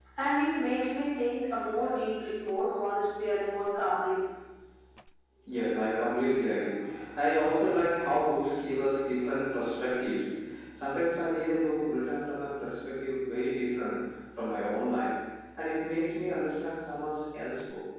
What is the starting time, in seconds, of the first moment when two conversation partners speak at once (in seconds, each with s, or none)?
none